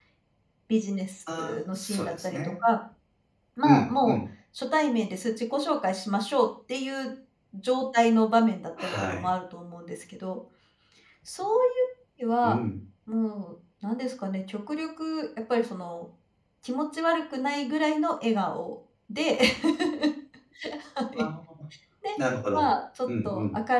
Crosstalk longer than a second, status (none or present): present